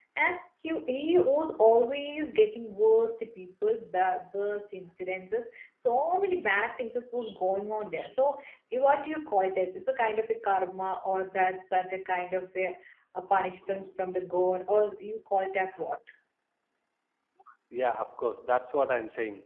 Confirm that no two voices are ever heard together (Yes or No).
Yes